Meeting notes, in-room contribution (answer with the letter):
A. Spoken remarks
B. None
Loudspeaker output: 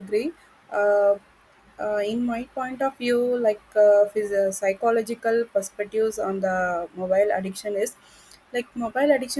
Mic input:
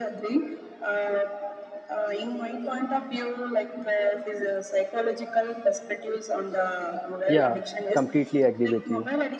A